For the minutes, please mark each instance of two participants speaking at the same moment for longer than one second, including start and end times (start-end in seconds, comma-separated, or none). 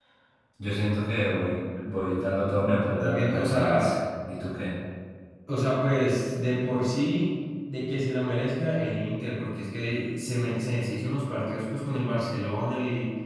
2.6-4.0